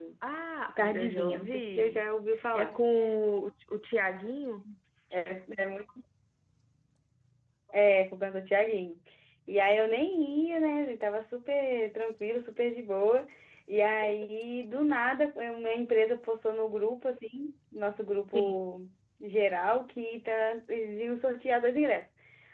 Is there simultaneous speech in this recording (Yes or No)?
Yes